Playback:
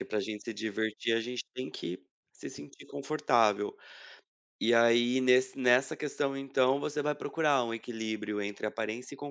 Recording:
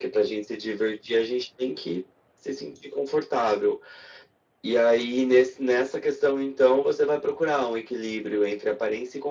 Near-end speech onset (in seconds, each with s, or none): none